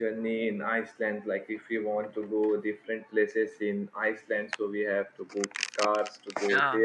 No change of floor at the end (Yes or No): Yes